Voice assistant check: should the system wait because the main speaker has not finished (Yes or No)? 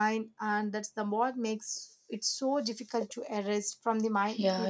No